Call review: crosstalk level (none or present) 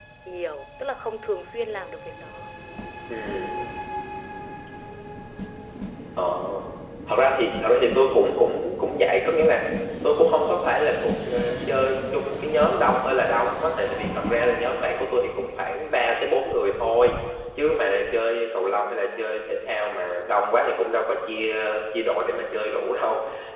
none